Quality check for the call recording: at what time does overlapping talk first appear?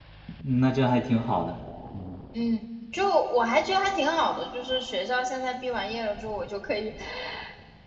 none

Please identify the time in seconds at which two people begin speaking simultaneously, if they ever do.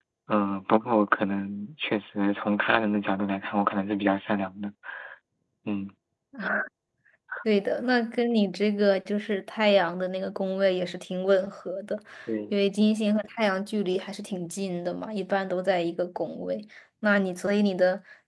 none

